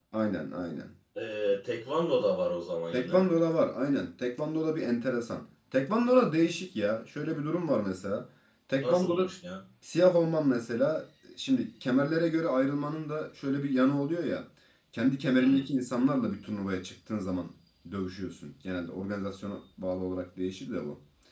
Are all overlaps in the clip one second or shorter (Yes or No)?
Yes